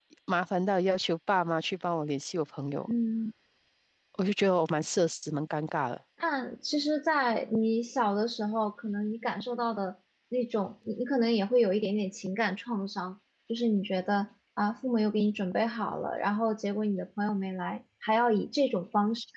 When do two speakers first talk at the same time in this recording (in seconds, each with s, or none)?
none